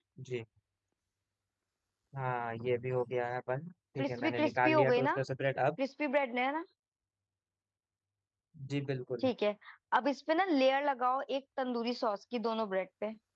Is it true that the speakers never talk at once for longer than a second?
No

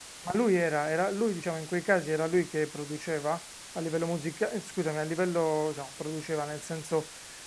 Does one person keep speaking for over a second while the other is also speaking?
No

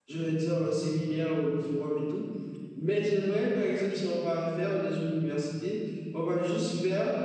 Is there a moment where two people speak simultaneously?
No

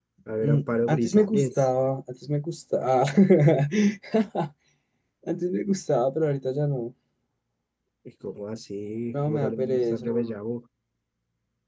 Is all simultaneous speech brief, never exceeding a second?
No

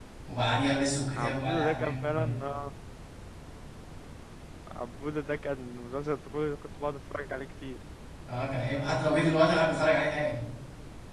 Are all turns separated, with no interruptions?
No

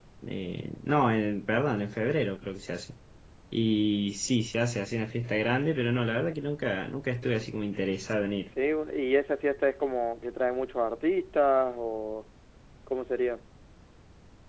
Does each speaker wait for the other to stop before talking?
Yes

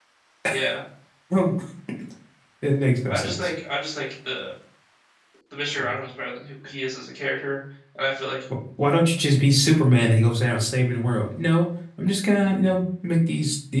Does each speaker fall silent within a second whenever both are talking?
Yes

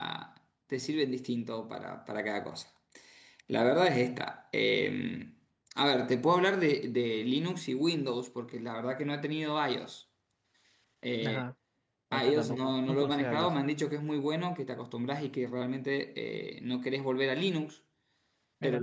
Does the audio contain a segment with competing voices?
Yes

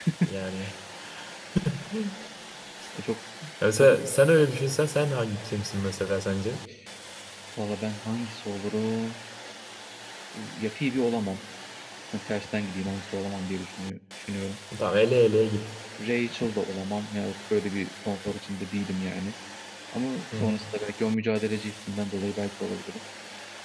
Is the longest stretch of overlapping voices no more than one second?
Yes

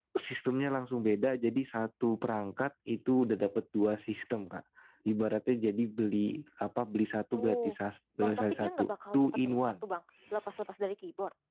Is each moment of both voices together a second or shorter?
No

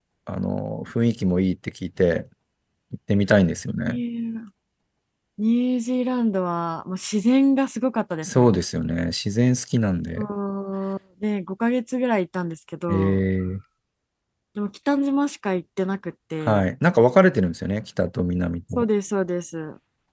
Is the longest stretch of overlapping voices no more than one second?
Yes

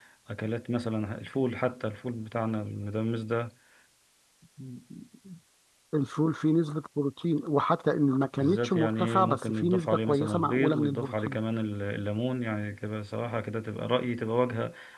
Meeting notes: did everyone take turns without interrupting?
No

